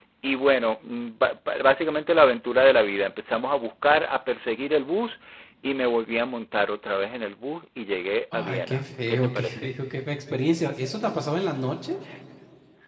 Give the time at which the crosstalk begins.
8 s

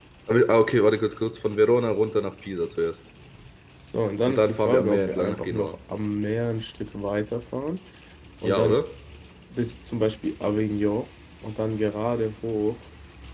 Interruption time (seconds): 4 s

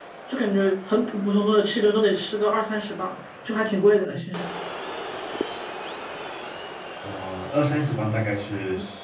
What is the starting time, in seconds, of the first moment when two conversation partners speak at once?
none

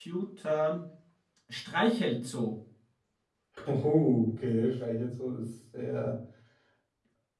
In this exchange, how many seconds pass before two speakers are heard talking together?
none

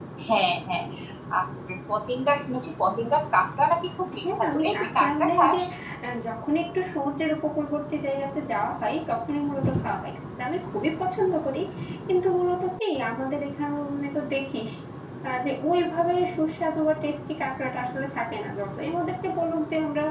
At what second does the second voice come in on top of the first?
4 s

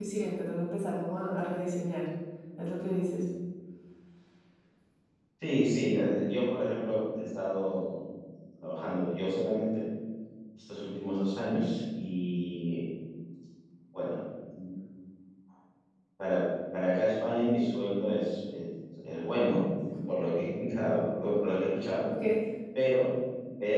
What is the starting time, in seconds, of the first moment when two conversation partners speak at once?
none

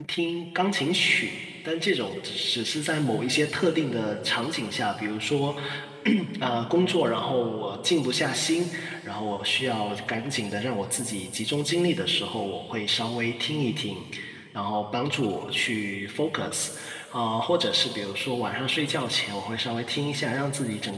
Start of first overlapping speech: none

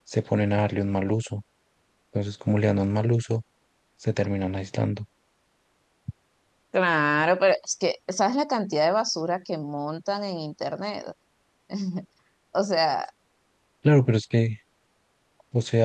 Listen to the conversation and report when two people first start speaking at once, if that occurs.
none

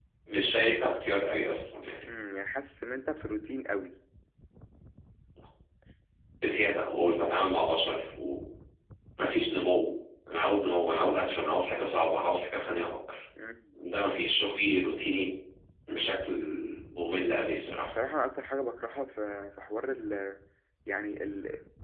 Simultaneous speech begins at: none

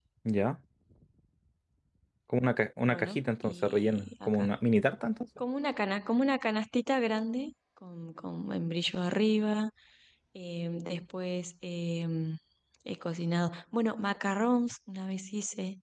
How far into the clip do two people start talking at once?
3 s

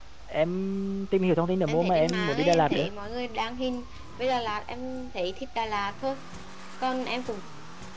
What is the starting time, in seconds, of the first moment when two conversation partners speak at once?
2 s

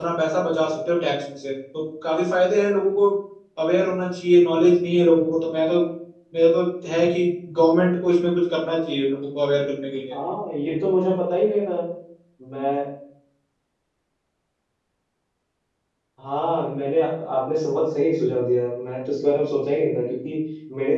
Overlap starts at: none

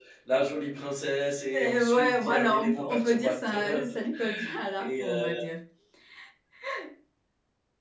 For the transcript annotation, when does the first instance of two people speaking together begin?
2 s

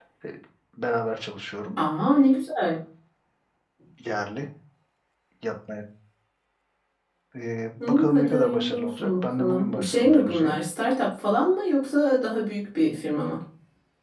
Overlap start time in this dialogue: 8 s

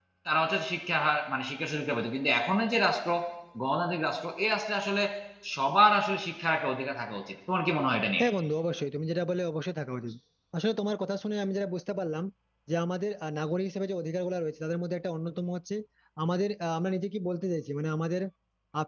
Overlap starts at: none

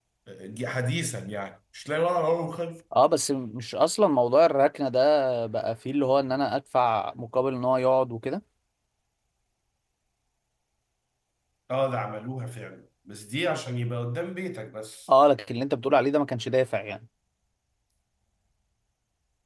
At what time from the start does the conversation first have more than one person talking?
none

